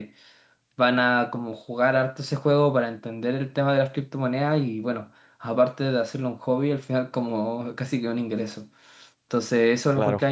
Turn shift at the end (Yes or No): No